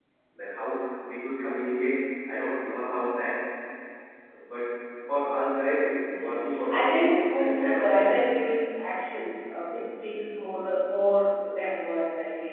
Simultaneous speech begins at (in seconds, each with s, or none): 6.0 s